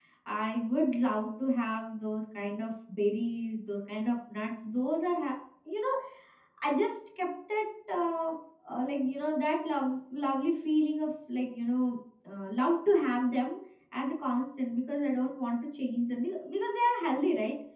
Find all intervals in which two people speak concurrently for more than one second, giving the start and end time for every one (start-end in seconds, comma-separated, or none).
none